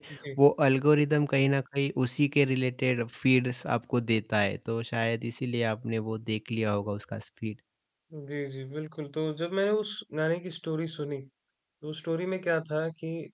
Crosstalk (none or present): none